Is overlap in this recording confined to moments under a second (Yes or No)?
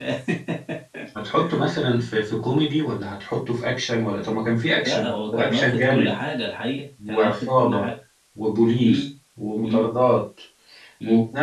No